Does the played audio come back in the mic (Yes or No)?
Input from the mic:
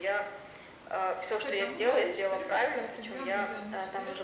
Yes